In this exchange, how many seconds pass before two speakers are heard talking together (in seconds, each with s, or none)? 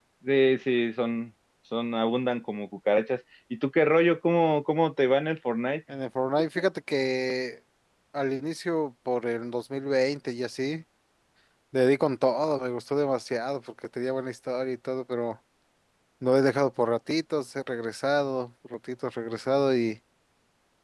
none